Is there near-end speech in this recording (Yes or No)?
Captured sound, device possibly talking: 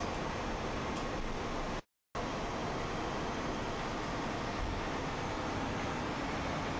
No